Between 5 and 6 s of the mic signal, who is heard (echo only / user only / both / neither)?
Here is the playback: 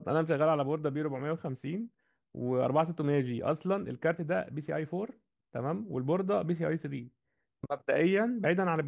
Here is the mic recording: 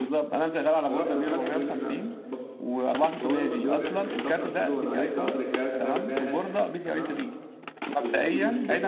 both